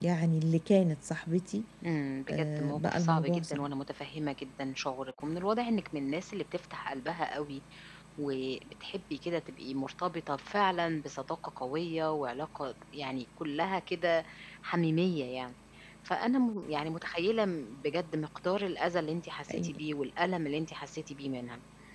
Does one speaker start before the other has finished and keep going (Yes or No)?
Yes